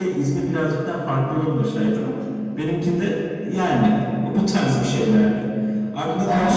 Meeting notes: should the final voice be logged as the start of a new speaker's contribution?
No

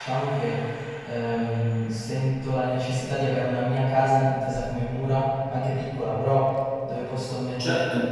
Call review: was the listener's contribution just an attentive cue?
No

